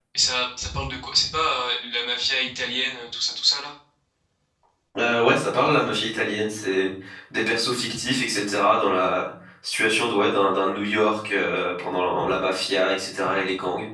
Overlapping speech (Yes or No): No